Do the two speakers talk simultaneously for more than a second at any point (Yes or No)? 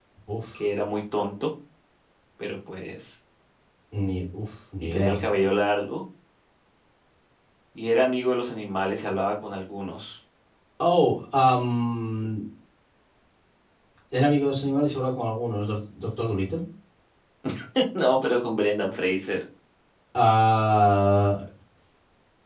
No